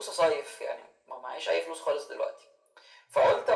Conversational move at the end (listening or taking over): listening